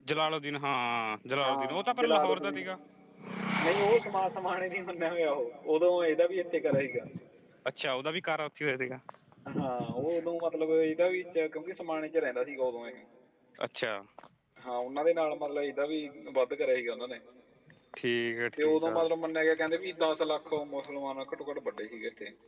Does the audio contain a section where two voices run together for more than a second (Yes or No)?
Yes